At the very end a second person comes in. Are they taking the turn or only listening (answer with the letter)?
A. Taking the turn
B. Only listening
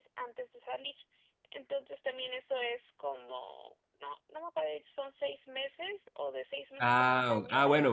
A